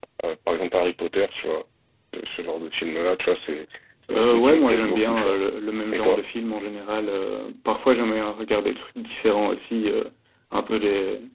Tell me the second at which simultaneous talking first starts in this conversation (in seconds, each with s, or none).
4.1 s